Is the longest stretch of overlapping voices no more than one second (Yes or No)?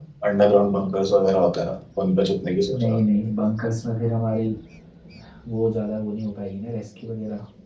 Yes